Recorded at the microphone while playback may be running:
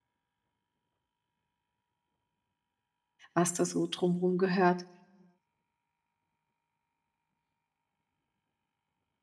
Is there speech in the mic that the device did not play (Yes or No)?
Yes